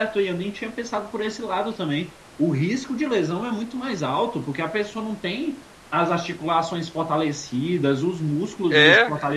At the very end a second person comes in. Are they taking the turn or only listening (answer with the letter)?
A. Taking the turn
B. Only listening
B